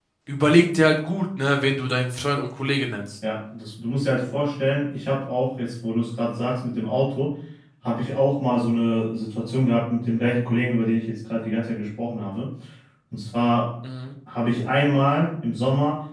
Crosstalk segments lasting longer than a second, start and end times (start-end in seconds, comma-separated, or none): none